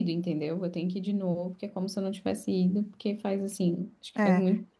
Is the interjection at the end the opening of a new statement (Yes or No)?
Yes